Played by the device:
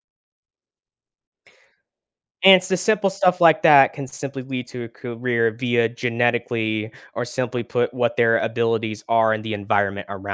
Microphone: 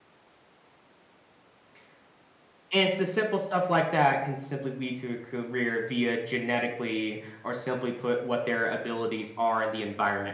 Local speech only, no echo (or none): none